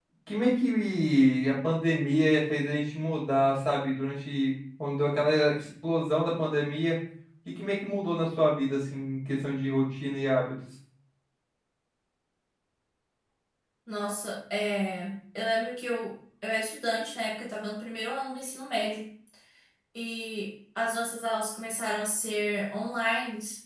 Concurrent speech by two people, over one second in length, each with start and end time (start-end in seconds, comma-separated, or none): none